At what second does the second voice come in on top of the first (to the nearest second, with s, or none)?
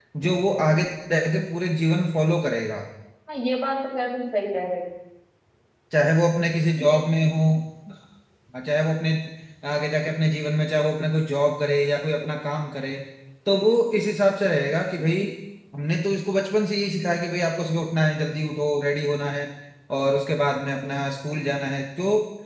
none